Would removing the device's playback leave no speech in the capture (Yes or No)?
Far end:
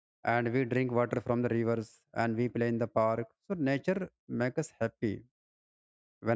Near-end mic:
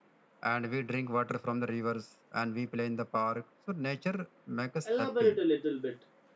No